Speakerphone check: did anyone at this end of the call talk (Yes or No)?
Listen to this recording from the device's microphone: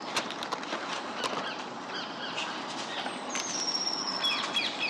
No